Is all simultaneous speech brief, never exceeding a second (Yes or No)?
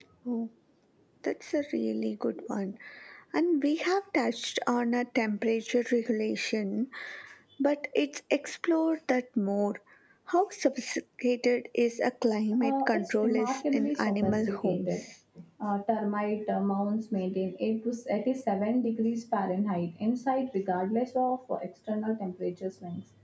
No